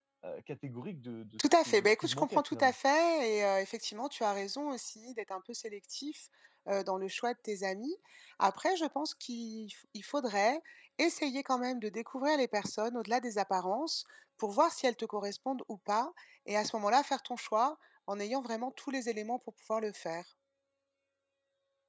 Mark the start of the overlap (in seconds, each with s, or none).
1.4 s